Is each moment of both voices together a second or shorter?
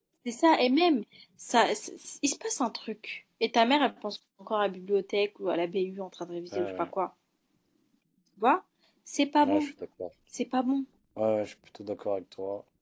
Yes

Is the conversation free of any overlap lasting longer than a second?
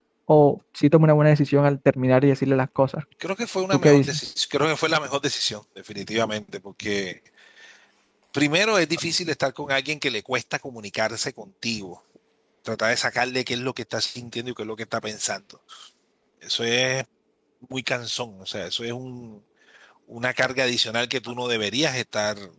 Yes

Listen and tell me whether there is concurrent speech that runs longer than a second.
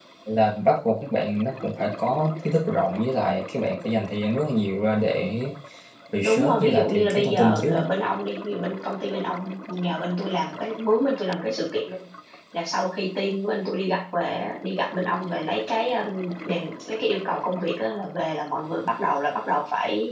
Yes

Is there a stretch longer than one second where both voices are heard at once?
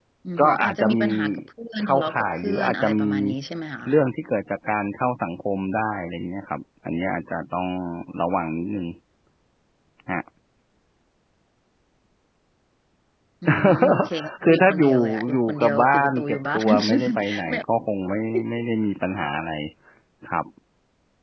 Yes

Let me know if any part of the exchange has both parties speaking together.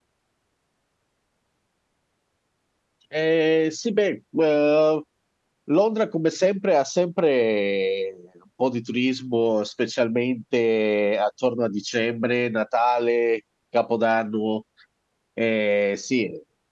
No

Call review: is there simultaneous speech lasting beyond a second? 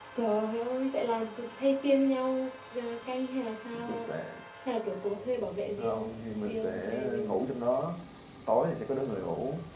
Yes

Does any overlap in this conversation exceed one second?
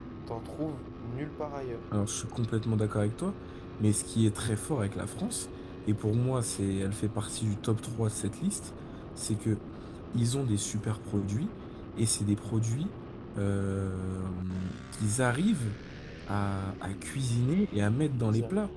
No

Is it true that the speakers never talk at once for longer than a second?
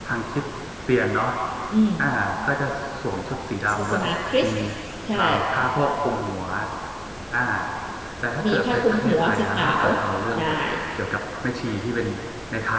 No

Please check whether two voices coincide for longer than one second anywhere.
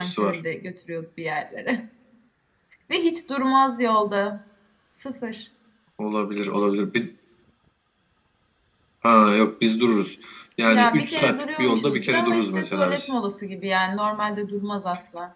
Yes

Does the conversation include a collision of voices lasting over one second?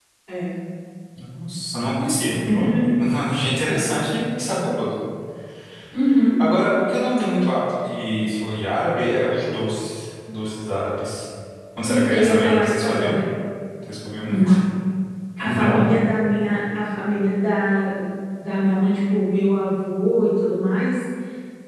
Yes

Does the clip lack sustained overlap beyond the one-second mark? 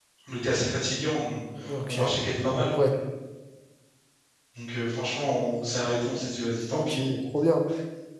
Yes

